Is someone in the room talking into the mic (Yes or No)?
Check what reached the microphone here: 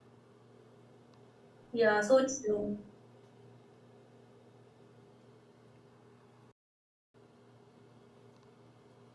Yes